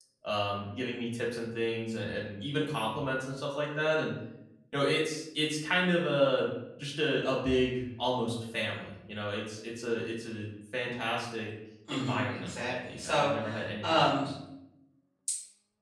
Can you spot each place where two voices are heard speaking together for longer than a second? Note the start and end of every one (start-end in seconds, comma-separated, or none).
11.9-13.3